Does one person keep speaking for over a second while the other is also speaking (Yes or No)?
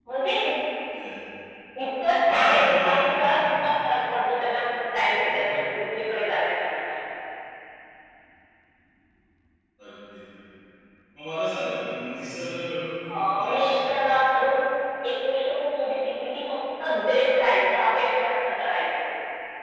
Yes